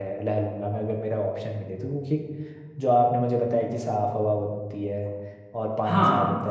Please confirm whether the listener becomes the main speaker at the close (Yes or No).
No